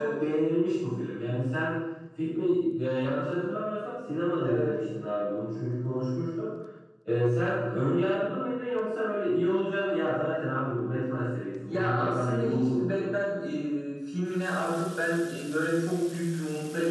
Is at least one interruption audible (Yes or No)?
Yes